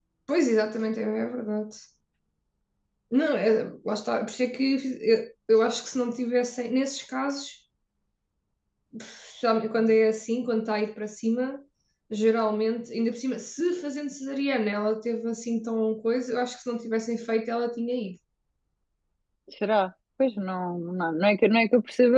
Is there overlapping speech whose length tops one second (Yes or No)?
No